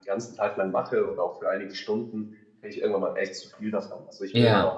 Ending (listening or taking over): listening